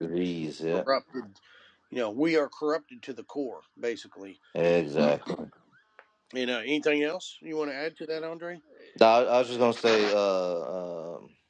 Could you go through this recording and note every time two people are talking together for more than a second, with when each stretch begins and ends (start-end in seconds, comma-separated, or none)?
none